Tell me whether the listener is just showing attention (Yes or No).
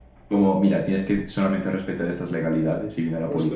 No